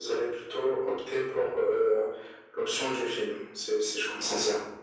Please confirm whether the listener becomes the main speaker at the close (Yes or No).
Yes